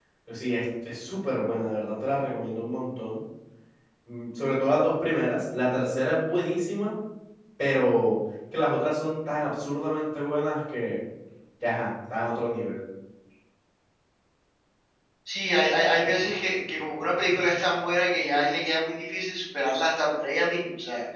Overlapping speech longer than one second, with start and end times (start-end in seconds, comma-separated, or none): none